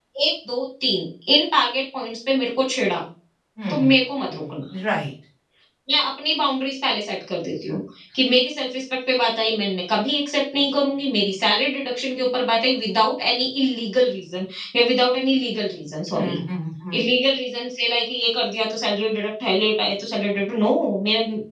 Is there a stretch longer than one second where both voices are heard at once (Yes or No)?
No